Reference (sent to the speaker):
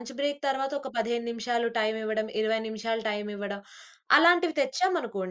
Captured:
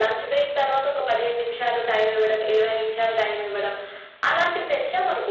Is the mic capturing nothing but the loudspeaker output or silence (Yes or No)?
Yes